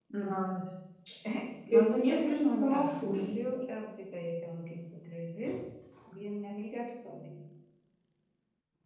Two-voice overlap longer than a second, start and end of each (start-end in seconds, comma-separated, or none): 1.7-3.3